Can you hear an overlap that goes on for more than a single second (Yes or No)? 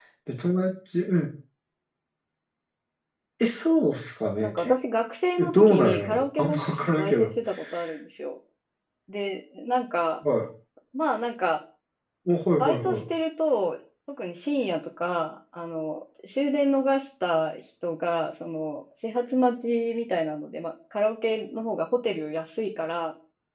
Yes